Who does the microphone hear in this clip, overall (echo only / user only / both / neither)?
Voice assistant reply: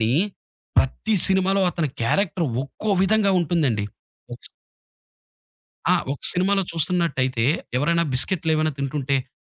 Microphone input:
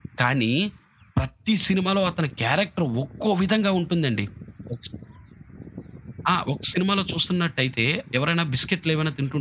echo only